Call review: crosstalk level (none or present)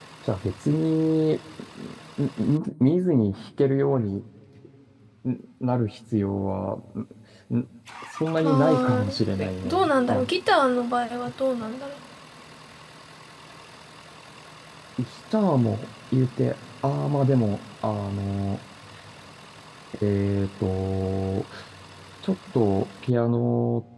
present